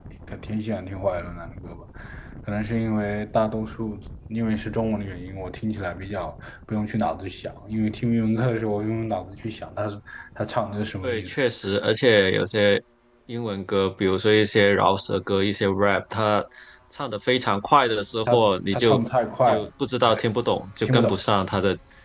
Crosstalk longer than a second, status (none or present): none